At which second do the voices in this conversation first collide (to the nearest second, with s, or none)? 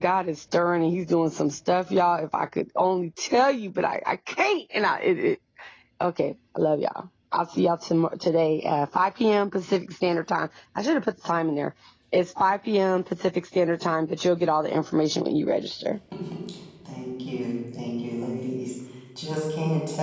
none